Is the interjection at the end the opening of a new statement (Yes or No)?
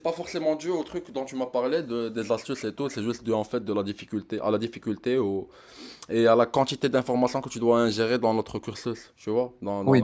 Yes